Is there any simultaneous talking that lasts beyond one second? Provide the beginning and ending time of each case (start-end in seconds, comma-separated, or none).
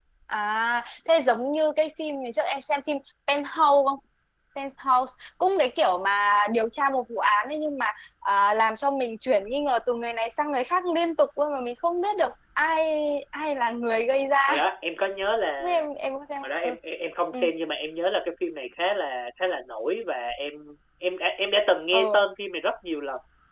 none